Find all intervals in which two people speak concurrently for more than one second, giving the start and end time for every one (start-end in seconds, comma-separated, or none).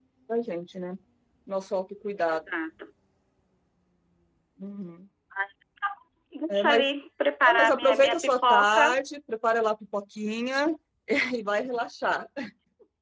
7.4-8.9